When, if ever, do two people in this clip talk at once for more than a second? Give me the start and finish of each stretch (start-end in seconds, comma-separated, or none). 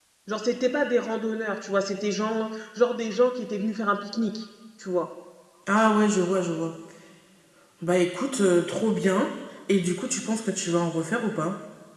none